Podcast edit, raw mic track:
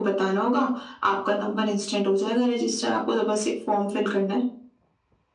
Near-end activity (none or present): none